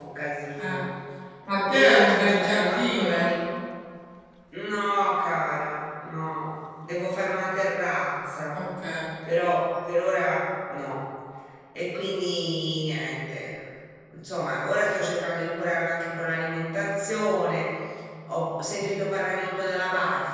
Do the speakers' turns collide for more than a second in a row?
Yes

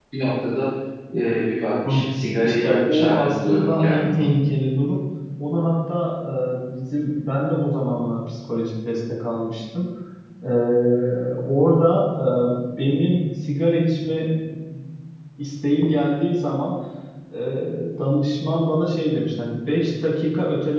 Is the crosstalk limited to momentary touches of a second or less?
No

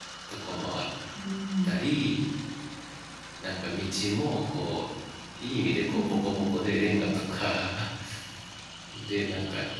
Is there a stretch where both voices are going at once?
Yes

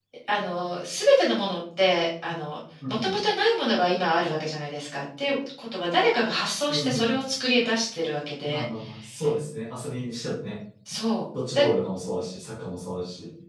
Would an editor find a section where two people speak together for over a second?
No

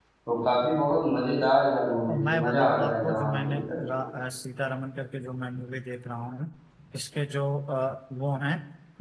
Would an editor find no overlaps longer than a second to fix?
No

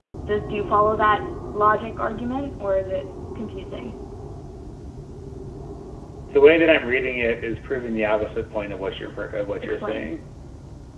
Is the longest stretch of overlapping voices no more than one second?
Yes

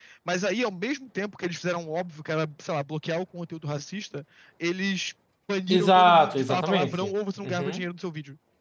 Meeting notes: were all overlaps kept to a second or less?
No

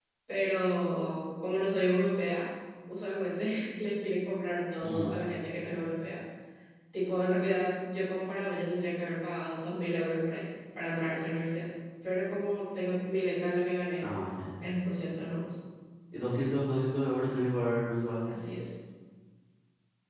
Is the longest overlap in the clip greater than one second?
No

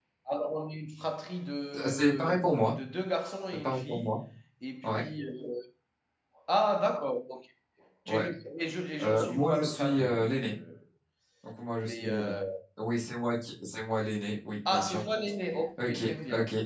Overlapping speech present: Yes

